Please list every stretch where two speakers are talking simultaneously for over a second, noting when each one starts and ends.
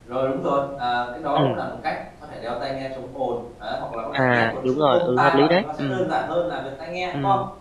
4.1-6.1

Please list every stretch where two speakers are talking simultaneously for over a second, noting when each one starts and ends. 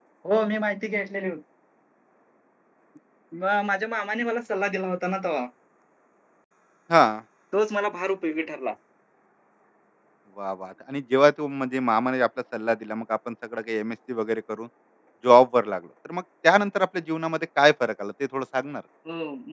none

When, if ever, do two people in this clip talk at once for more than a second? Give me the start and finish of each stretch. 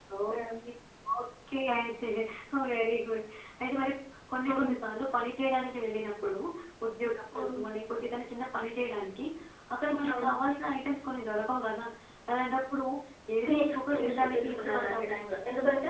13.4-15.2

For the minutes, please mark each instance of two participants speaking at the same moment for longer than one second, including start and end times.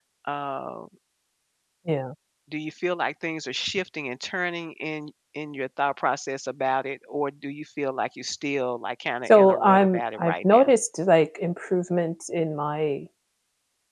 9.3-10.7

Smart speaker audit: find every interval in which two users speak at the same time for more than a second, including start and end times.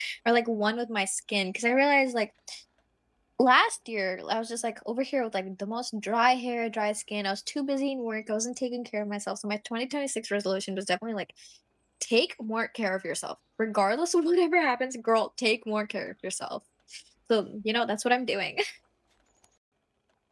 none

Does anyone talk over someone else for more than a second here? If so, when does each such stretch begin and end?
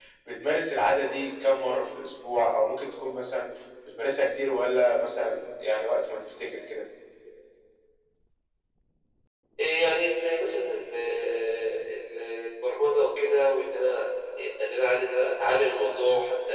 none

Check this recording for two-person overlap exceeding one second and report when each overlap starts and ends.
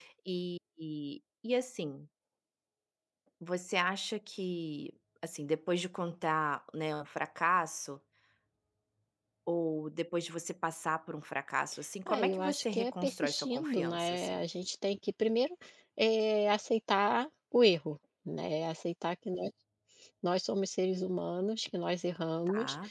12.1-14.4

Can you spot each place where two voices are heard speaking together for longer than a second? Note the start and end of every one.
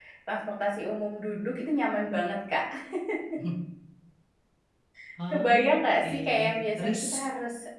5.3-7.0

